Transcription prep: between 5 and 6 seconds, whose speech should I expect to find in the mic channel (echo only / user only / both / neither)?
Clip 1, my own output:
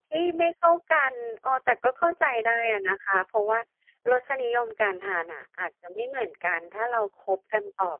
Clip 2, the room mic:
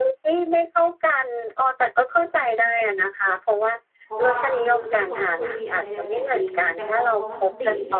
both